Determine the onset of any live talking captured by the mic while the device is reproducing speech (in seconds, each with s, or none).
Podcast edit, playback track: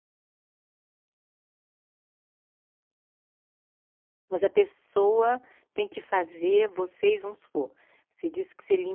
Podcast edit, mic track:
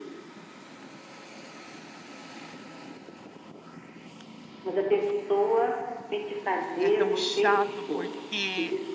6.8 s